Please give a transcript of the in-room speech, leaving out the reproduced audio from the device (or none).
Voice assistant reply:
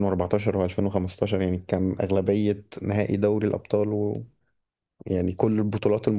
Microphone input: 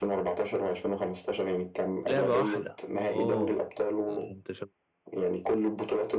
لعبه واحده اوه لا انت شو...